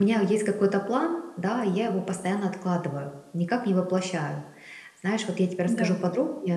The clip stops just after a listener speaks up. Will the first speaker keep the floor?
Yes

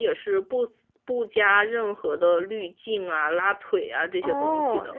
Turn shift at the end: Yes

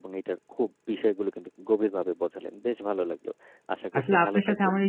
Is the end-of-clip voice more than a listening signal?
Yes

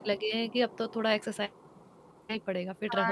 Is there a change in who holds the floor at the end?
Yes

